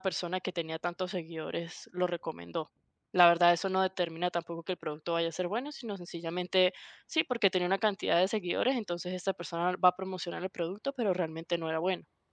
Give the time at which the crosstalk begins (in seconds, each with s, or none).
none